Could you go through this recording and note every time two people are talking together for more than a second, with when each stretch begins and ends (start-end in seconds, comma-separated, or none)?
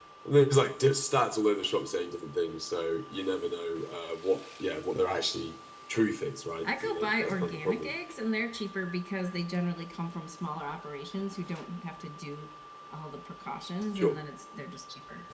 6.6-7.9